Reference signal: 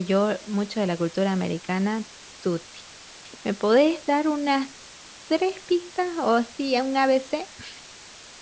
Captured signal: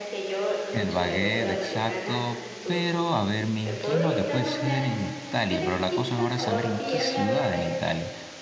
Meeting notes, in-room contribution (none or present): present